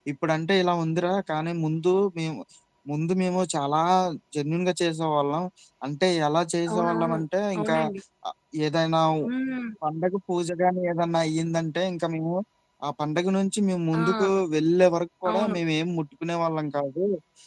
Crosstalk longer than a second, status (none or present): none